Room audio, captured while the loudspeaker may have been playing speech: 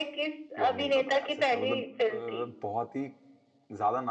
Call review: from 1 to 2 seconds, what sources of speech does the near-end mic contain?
both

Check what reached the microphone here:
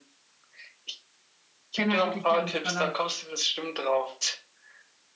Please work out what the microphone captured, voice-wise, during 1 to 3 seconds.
both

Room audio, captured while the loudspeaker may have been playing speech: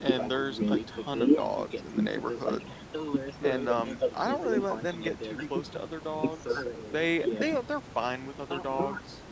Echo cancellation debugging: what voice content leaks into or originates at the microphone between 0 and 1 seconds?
both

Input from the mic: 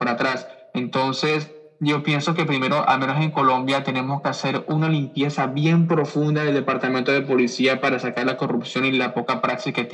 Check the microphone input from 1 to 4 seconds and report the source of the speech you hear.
echo only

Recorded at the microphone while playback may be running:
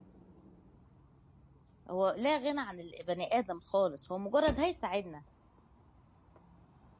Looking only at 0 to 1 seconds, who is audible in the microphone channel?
neither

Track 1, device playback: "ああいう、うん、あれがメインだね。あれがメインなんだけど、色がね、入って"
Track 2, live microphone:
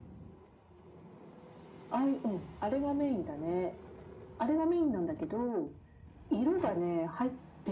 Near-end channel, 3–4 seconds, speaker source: echo only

